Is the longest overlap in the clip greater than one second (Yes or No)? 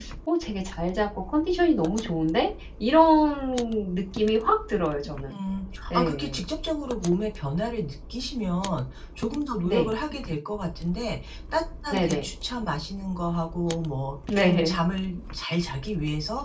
No